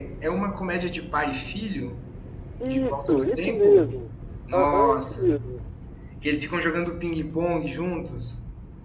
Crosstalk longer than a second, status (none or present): present